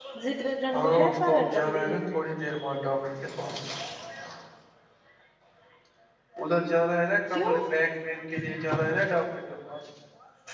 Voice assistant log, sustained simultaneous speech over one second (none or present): present